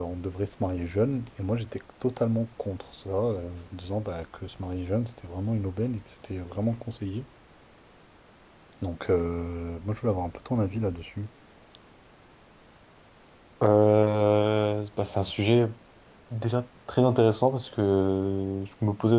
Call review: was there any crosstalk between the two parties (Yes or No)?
No